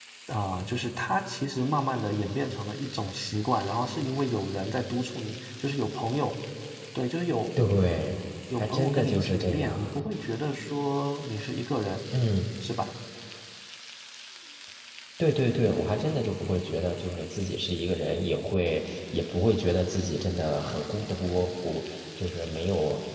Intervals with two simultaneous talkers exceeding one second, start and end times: 8.6-9.9

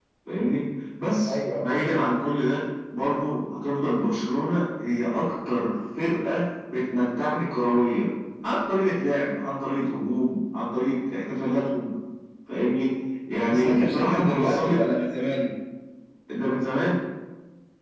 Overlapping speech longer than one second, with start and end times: 13.5-14.8

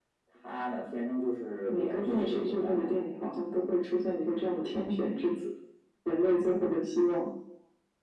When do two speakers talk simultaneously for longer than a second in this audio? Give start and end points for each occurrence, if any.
1.7-3.1

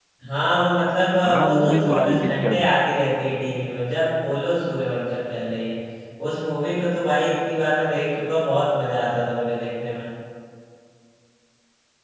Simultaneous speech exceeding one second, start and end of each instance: 1.3-2.7

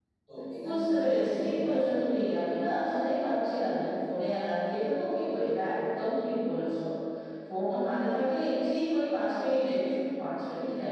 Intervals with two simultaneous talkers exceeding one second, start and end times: 0.6-2.1

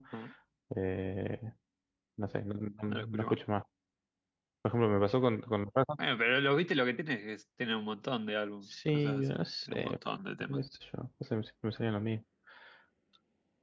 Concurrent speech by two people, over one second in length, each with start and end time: 8.7-10.0

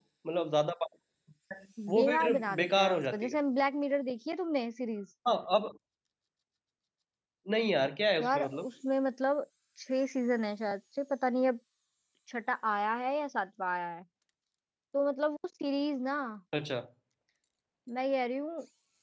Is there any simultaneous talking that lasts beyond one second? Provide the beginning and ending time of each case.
1.9-3.4

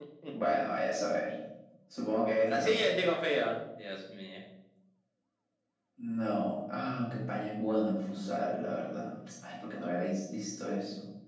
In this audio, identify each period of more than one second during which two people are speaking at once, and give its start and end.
none

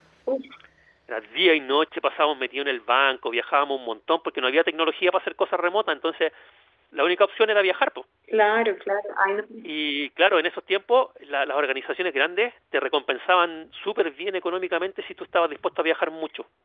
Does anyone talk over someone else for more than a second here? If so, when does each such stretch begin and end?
none

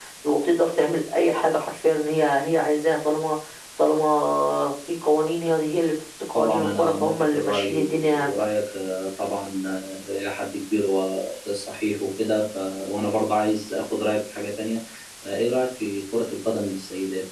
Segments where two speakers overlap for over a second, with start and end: 6.3-8.3

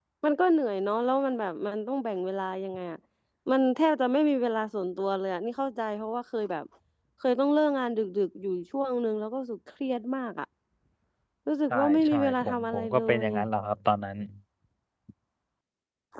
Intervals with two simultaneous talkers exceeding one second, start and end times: 11.7-13.3

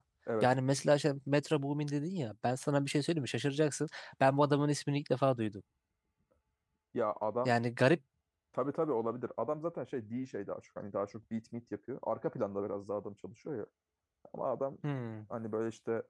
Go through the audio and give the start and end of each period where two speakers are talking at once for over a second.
none

